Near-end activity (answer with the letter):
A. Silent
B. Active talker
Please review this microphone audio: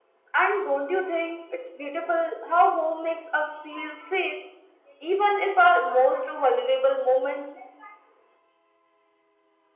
A